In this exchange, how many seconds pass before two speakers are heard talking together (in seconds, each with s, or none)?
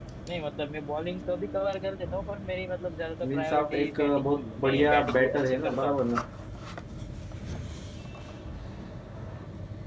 3.2 s